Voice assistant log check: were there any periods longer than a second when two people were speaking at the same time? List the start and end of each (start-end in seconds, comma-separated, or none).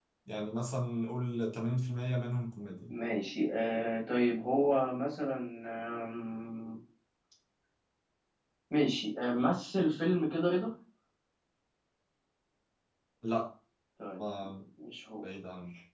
none